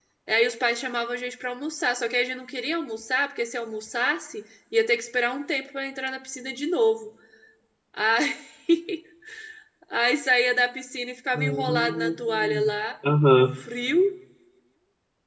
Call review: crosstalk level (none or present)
present